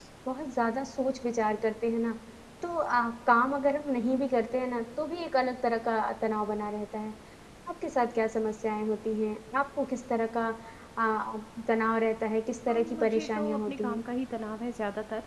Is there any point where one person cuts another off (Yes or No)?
Yes